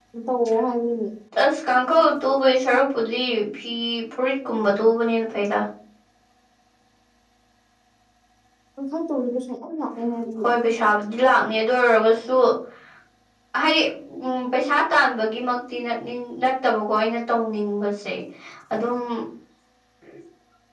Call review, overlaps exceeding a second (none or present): none